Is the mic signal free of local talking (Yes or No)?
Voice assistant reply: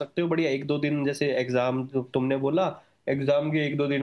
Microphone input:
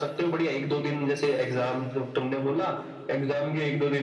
Yes